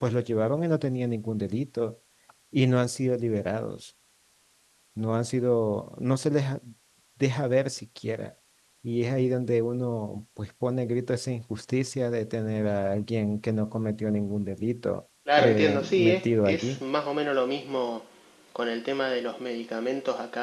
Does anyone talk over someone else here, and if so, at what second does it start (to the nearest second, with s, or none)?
15 s